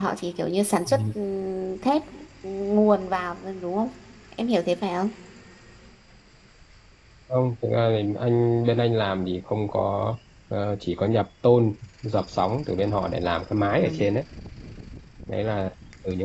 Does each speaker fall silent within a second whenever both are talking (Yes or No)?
Yes